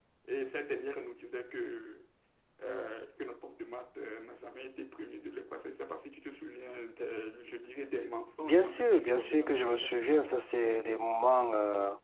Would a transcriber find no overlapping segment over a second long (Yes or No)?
No